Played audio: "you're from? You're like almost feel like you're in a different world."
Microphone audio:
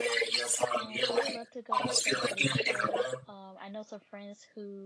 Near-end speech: present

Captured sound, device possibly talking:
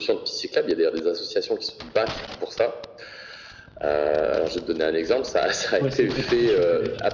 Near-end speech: present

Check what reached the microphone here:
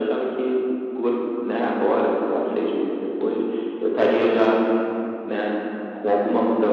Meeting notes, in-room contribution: none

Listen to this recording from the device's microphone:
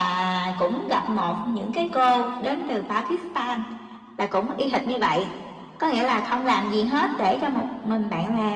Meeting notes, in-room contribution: none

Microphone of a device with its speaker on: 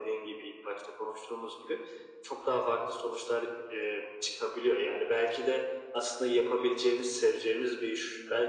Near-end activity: none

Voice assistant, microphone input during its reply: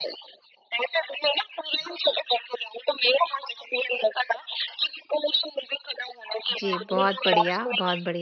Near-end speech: present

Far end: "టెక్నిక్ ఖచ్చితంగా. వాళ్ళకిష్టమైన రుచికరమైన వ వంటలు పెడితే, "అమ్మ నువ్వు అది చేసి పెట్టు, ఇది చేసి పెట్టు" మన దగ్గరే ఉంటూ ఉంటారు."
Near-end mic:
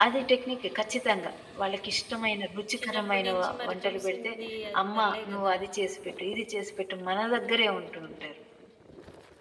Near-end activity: present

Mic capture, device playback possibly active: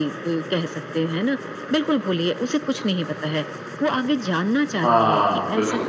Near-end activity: present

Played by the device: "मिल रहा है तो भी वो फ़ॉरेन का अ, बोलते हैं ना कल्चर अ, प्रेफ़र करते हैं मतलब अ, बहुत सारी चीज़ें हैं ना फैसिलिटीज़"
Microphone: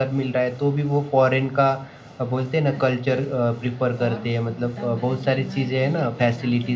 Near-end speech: present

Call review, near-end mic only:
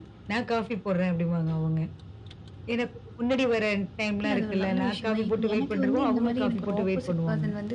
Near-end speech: present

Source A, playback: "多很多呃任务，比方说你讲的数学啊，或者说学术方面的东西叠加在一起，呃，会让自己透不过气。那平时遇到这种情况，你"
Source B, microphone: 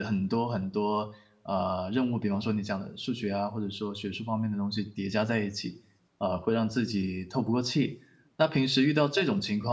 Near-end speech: none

